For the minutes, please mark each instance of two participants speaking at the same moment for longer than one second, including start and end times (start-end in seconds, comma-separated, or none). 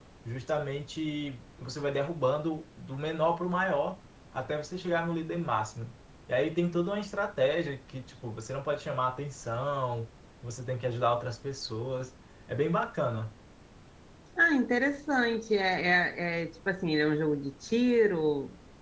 none